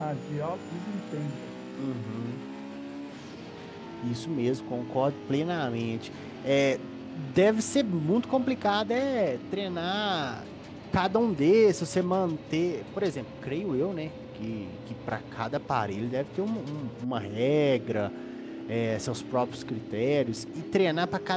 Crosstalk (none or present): none